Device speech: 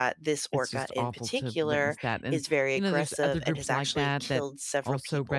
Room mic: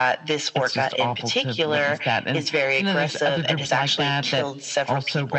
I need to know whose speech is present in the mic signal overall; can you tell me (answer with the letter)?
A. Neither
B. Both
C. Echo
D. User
C